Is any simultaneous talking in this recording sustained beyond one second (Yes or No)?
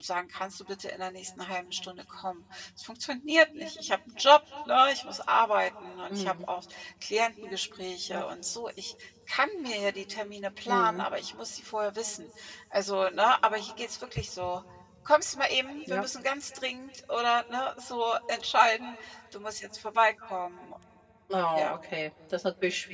No